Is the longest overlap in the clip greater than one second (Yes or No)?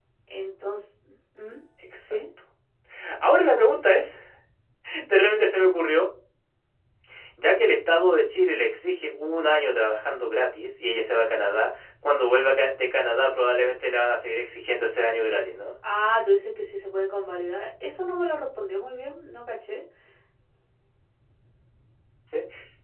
No